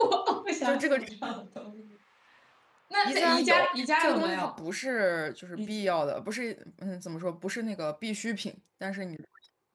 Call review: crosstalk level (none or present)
present